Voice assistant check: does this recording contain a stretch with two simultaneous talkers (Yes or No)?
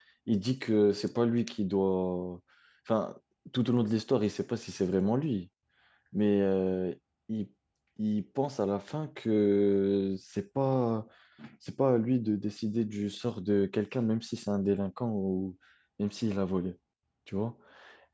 No